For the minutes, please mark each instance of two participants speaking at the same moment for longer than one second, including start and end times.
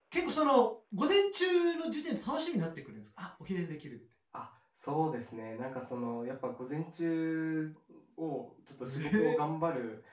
none

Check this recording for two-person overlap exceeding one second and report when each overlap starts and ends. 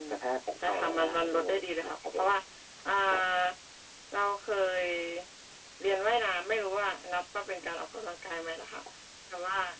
0.6-2.3

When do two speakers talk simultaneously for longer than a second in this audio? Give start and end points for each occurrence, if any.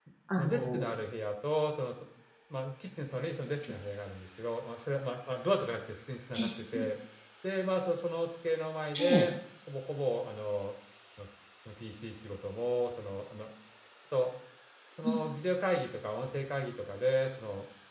none

